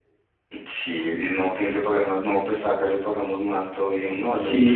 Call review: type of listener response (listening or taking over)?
taking over